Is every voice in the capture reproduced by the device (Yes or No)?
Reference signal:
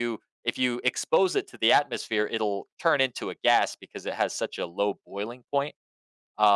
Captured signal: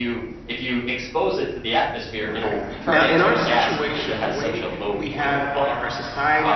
No